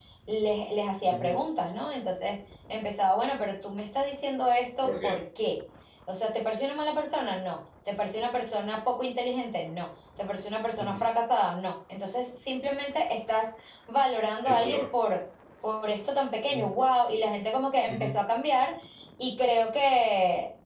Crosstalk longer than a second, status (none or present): none